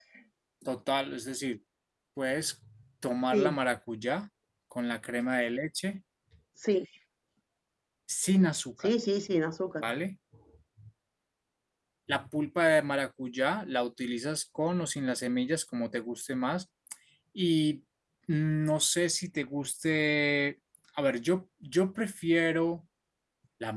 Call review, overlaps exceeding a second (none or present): none